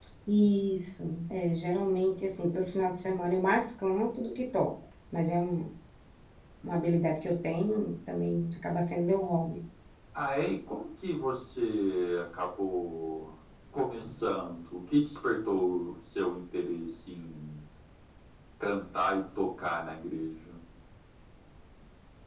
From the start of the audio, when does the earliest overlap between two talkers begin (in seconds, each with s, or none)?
none